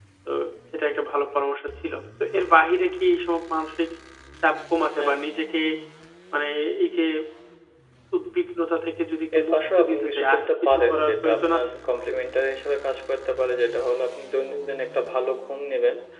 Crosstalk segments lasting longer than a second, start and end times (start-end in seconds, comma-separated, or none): 9.4-11.7